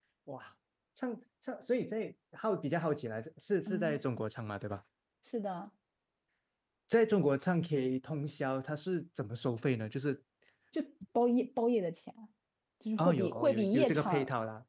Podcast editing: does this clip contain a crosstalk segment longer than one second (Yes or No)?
Yes